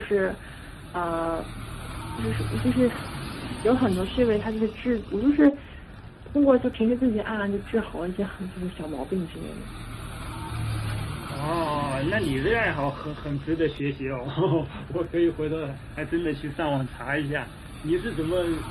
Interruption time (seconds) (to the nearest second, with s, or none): none